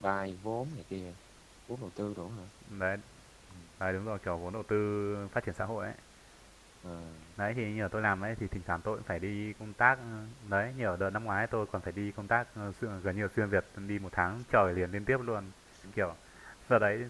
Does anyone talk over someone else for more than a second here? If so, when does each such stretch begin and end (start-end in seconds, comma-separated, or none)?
none